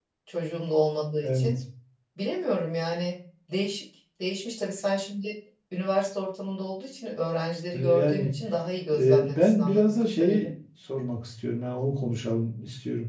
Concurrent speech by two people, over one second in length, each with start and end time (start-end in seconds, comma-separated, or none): 9.0-10.5